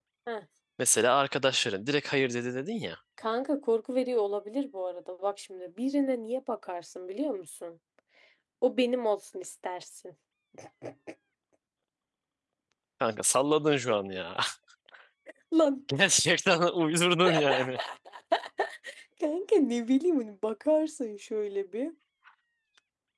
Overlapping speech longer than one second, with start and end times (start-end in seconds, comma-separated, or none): none